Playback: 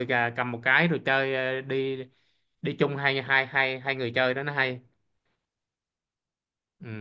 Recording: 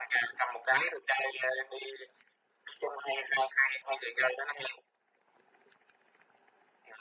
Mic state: echo only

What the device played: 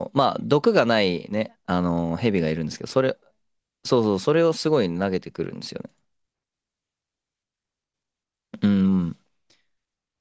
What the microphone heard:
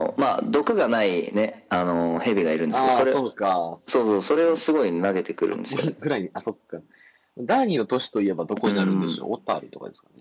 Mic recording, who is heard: both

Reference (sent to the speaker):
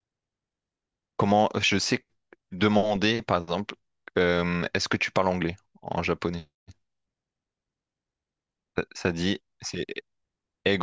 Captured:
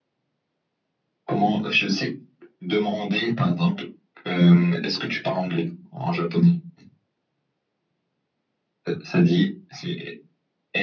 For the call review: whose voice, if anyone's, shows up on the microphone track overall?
echo only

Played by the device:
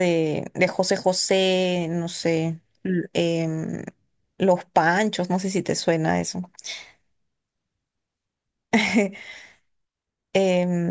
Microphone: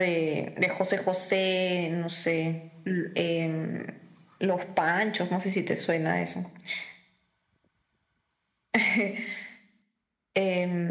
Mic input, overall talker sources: echo only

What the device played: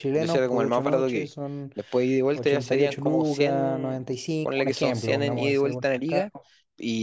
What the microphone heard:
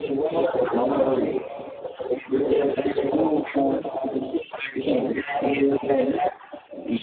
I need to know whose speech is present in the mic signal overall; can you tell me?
echo only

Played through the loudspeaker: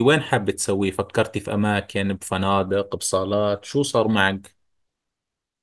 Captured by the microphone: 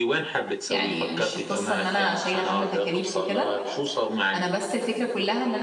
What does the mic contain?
both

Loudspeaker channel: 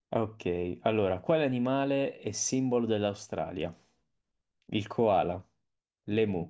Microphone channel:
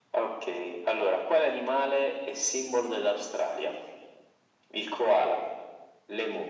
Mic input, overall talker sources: echo only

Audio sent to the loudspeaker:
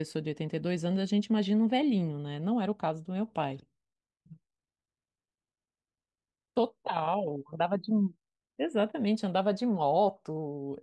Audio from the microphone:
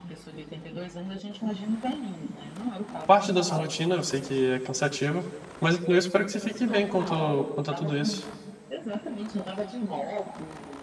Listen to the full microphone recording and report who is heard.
both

